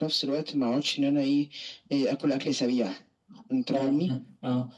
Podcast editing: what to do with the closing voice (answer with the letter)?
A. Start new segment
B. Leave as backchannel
A